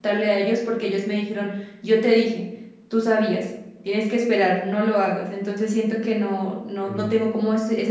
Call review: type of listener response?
listening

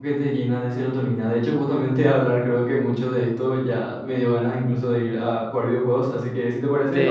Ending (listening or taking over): taking over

